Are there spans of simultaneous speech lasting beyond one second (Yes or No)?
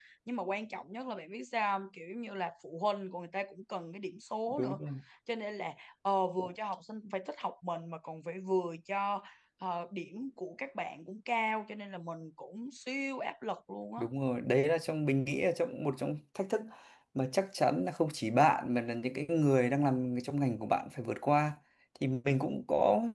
No